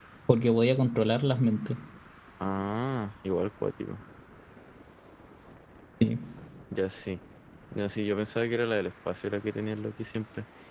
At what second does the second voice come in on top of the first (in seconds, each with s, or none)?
none